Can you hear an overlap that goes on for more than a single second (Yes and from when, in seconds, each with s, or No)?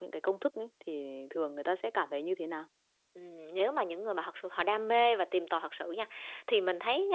No